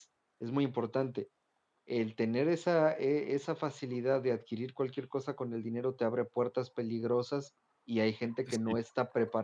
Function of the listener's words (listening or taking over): listening